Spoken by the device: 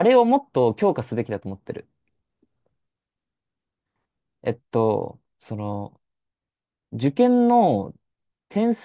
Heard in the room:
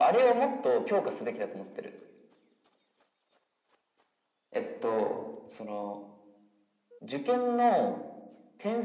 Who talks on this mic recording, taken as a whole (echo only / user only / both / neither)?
echo only